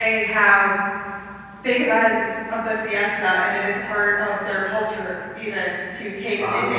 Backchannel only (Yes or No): No